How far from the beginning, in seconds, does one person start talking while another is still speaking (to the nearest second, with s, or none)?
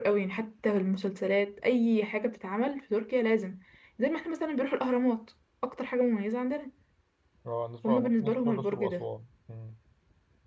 8 s